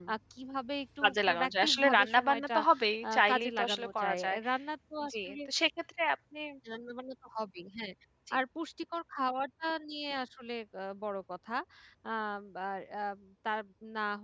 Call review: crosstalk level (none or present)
present